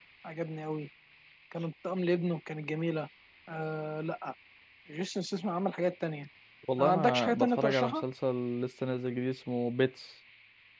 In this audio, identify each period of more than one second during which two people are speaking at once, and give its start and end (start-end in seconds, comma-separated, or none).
6.8-8.0